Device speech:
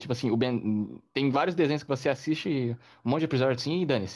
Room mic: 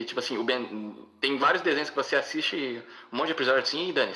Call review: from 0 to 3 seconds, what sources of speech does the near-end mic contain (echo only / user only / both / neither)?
echo only